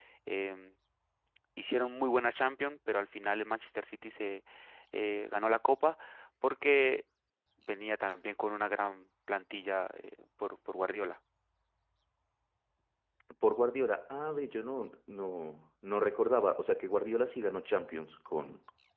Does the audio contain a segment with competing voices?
No

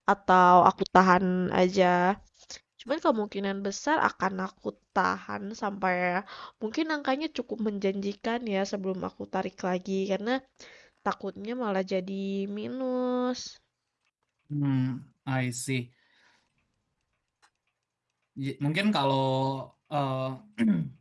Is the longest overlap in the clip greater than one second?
No

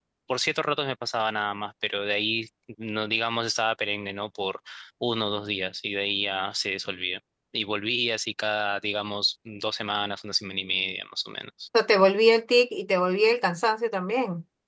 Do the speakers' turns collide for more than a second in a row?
No

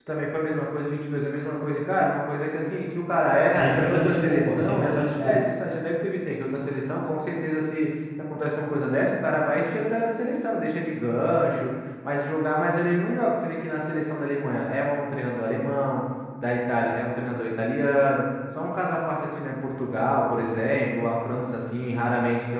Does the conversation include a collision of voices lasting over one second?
Yes, from 3.6 s

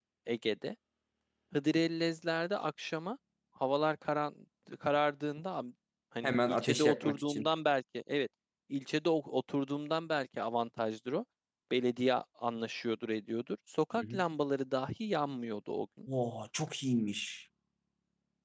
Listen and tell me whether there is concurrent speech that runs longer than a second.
Yes, from 6.2 s

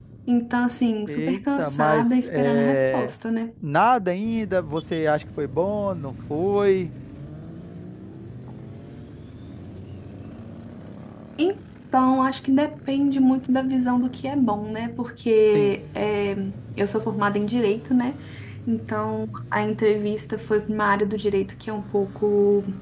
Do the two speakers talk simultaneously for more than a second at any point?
Yes, from 1.1 s

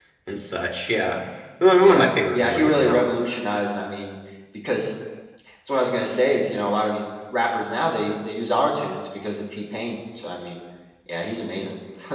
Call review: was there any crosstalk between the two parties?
Yes, from 1.8 s

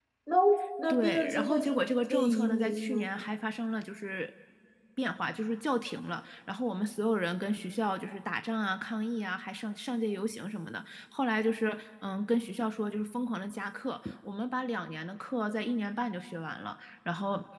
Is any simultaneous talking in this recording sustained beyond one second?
Yes, from 0.9 s

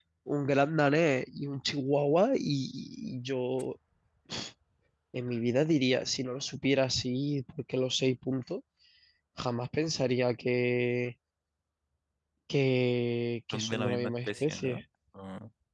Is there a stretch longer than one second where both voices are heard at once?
Yes, from 13.5 s

